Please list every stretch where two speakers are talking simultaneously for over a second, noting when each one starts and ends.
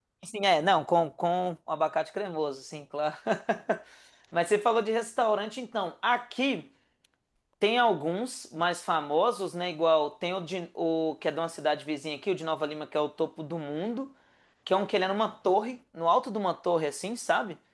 none

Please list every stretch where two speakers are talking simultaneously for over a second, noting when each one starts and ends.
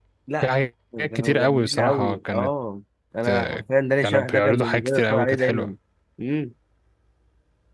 1.1-2.5, 4.0-5.7

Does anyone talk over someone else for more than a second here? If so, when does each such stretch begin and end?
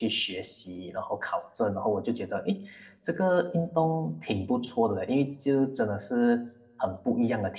none

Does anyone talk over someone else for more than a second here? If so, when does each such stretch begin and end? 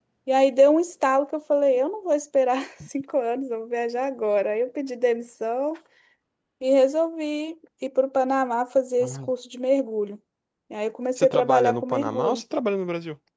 11.2-12.4

